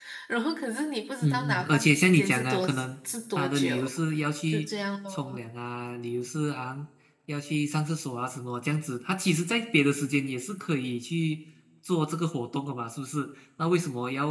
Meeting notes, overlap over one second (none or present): present